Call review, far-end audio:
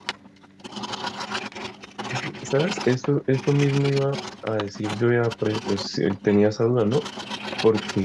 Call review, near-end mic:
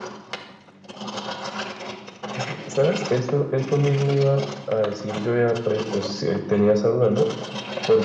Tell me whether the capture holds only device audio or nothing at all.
Yes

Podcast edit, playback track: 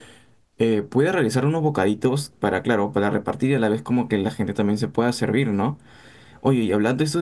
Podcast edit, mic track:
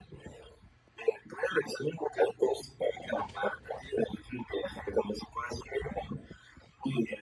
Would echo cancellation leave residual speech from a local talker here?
No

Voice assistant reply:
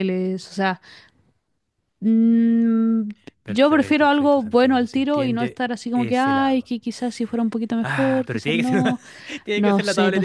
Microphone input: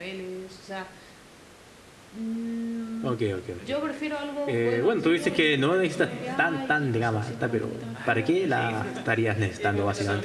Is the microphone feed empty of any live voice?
No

